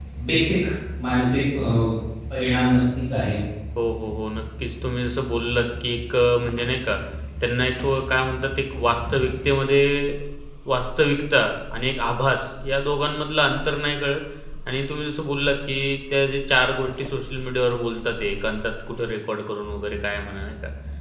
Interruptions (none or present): none